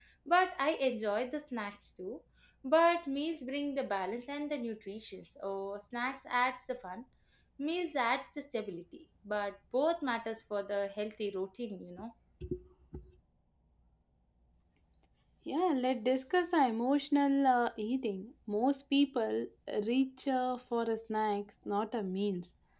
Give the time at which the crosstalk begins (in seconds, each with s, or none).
none